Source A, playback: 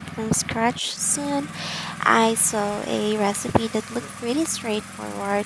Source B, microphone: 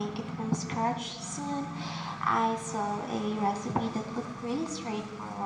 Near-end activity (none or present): none